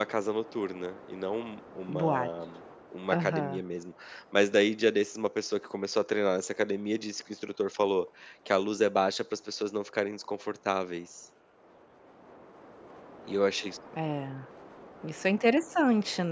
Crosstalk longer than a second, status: none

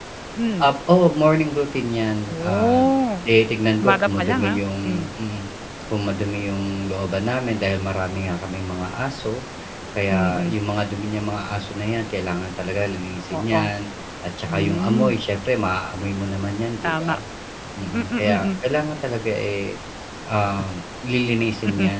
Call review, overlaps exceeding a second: present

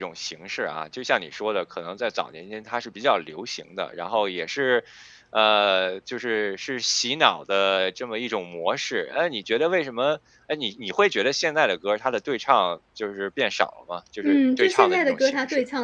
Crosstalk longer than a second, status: present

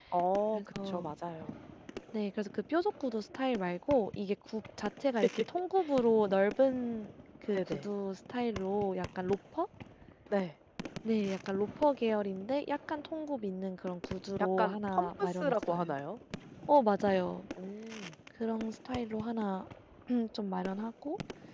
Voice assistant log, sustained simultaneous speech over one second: present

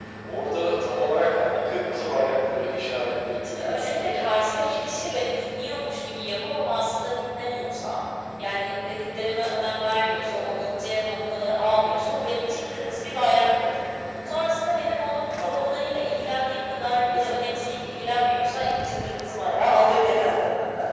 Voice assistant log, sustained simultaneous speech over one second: present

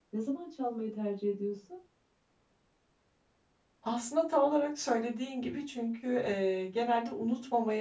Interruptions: none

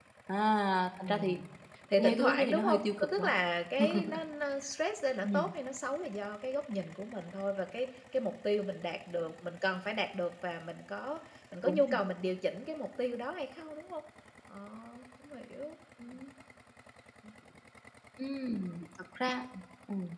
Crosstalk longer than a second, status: present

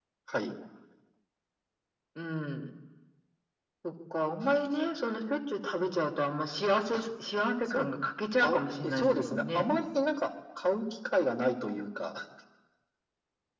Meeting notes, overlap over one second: present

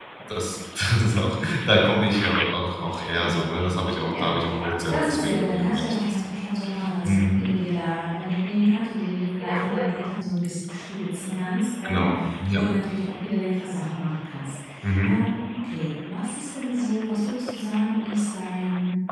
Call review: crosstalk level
present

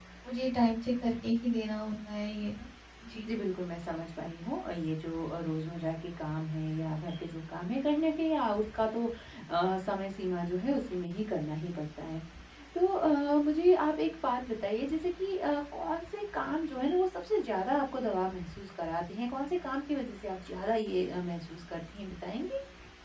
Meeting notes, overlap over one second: none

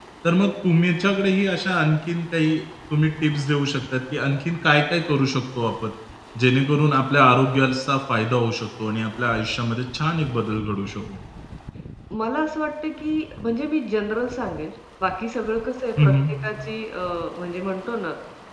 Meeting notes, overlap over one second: none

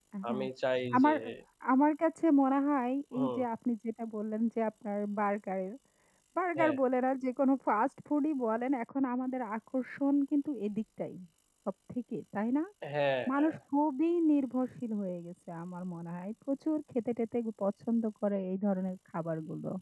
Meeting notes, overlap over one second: none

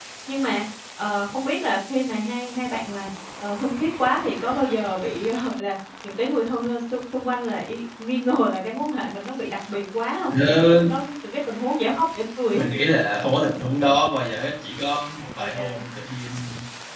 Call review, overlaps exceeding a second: none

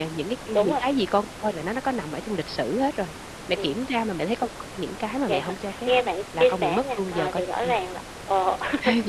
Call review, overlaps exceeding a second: present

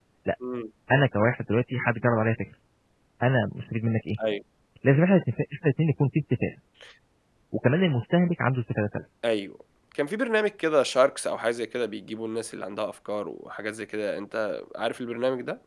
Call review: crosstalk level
none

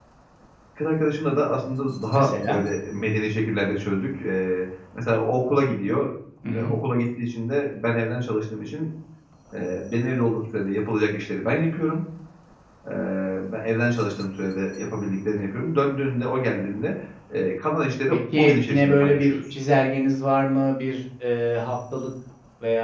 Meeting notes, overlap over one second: present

